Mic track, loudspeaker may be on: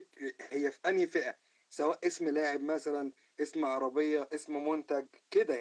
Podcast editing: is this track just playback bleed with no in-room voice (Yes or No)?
Yes